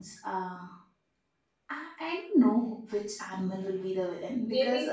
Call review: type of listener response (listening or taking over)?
taking over